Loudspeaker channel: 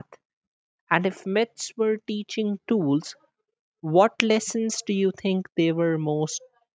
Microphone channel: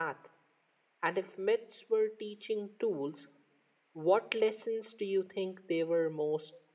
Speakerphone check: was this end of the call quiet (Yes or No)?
Yes